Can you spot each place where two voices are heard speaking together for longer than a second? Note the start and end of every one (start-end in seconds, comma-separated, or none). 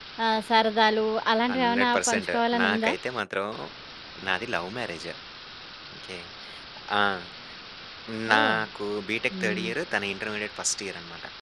1.6-2.9